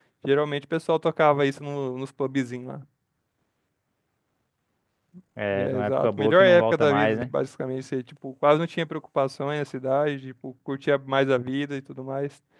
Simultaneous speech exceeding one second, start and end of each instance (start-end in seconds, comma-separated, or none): 5.5-7.2